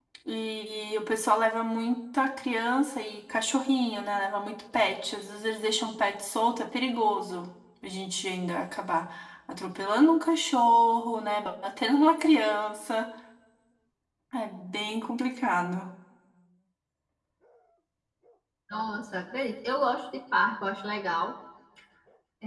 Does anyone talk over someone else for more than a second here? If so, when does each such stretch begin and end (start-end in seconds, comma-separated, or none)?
none